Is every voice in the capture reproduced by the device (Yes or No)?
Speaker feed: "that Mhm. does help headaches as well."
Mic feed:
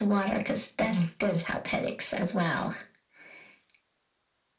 Yes